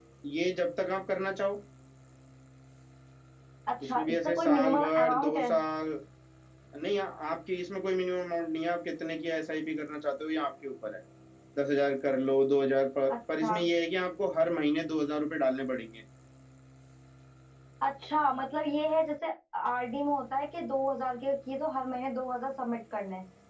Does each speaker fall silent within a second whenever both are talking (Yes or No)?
No